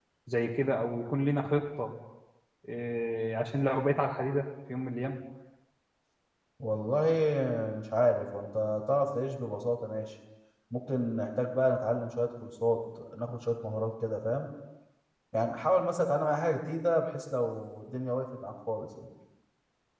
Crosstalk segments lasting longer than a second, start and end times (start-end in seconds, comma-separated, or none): none